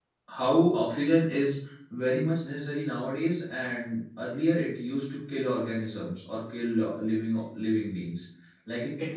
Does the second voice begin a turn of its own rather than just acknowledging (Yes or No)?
Yes